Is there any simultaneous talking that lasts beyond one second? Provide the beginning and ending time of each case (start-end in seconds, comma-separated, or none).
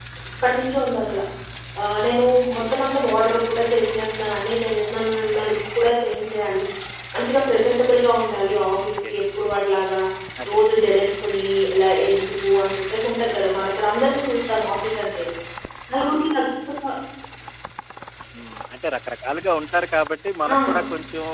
none